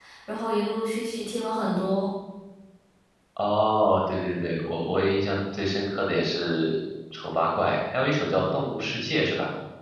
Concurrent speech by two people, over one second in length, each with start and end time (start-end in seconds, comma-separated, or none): none